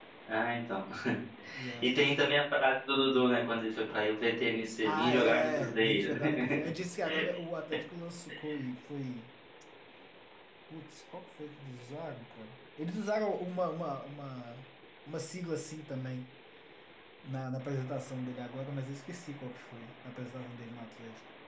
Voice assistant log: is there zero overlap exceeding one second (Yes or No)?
No